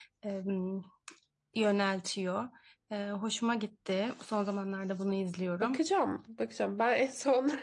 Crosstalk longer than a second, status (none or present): none